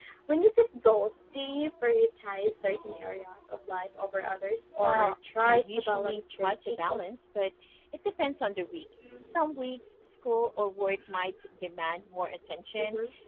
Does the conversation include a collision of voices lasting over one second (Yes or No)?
Yes